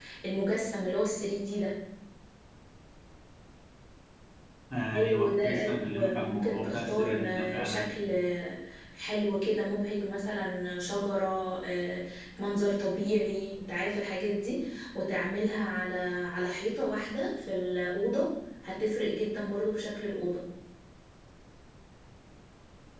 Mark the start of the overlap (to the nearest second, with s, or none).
5 s